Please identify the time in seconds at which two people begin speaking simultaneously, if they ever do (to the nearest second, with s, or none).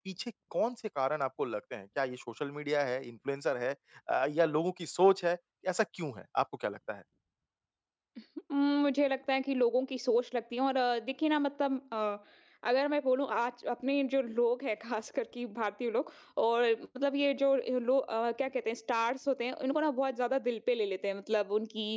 none